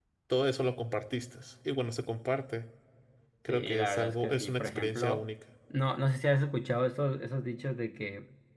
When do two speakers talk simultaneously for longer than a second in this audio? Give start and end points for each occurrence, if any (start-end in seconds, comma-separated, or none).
3.5-5.2